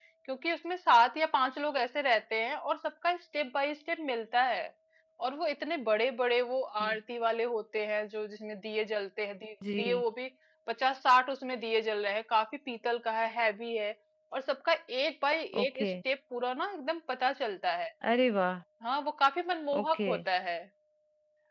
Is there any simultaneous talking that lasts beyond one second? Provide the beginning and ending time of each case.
none

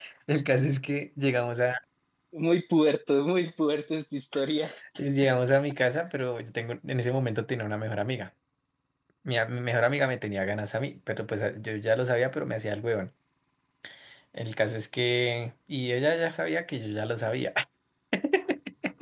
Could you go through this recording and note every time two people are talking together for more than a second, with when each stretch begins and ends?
none

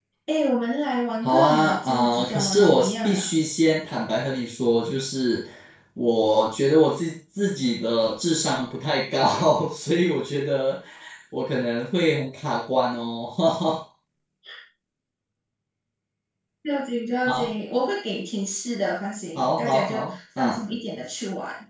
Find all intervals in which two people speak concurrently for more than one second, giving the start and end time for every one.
1.2-3.3, 19.4-20.6

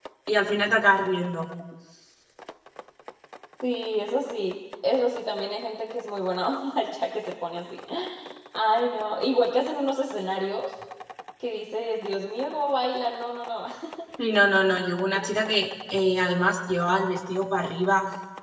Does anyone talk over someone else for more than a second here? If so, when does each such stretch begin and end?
none

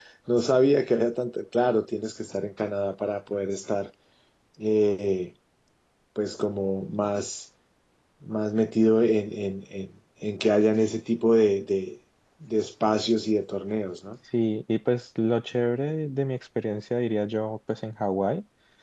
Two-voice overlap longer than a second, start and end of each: none

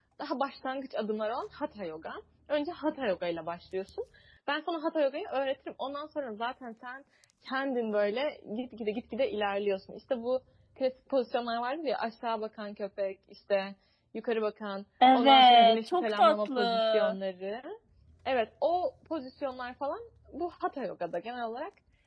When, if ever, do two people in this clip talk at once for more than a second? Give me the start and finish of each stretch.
15.1-17.1

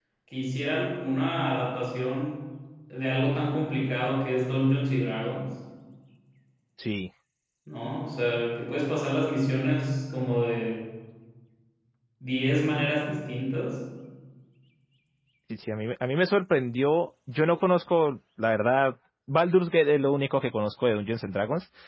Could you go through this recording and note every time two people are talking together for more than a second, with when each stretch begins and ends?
none

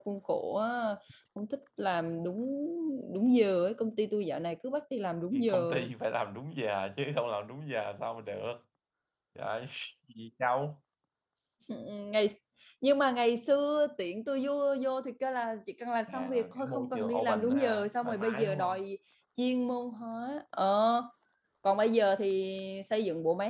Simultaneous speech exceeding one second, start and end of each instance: 16.1-18.8

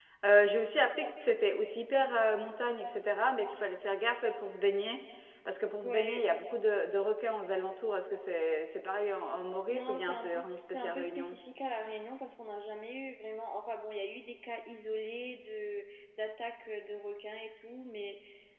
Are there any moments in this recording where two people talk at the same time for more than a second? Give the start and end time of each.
9.7-11.4

